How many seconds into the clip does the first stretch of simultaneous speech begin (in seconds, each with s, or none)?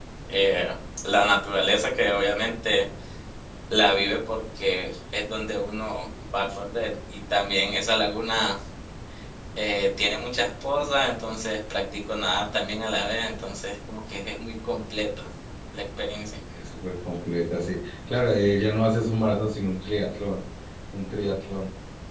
none